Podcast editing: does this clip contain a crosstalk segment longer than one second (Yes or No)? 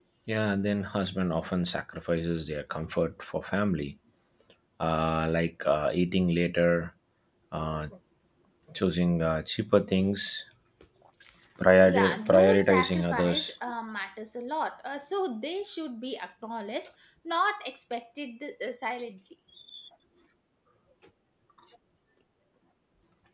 Yes